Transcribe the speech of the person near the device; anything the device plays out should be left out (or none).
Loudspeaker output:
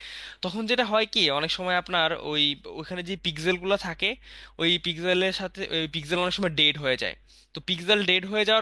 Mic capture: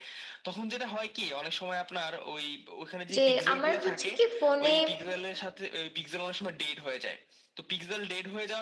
যে আমার হচ্ছে কি ফোনে